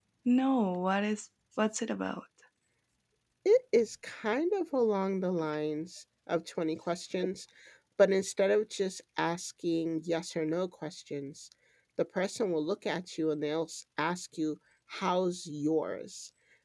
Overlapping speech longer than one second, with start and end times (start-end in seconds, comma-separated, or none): none